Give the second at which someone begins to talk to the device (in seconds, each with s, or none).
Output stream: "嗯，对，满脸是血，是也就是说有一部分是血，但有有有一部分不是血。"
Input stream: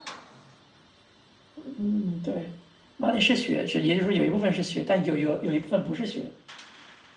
none